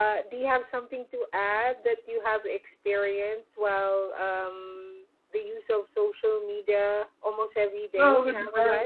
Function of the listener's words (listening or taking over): taking over